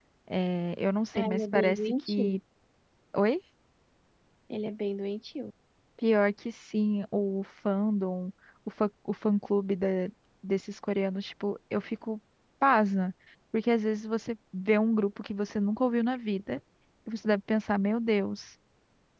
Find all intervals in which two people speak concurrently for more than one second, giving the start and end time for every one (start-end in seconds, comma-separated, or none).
1.1-2.4